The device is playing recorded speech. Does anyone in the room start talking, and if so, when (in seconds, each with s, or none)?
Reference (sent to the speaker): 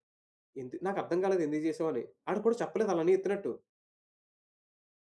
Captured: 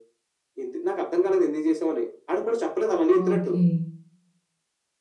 3.2 s